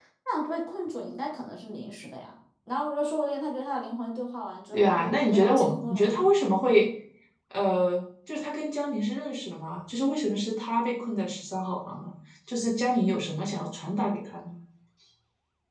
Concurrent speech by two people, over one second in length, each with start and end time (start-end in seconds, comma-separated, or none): 4.7-6.3